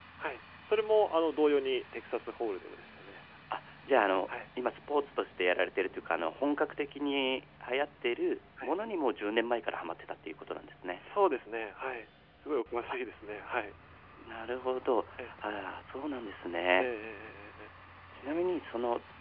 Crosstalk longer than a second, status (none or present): none